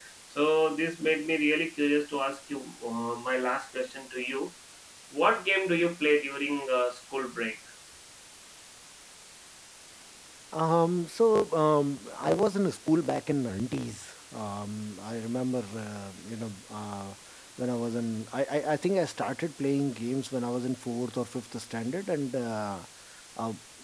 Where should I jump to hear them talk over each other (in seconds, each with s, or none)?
none